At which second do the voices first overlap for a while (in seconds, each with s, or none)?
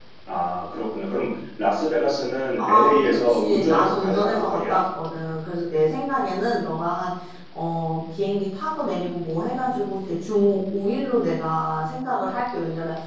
2.6 s